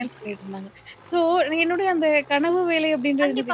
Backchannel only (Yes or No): No